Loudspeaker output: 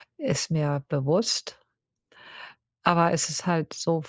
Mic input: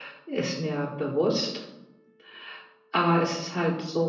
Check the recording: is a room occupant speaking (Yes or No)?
No